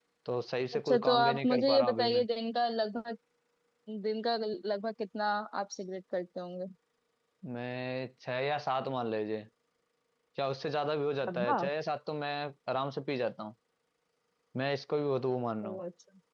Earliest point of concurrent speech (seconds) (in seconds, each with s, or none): 0.8 s